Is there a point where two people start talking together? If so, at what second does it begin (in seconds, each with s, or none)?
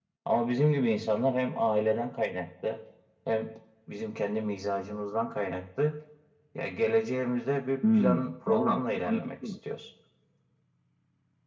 7.8 s